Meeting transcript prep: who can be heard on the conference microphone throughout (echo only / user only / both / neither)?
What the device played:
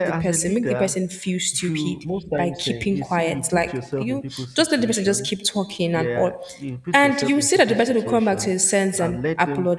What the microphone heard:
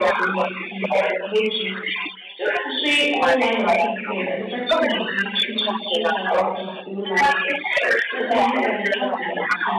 both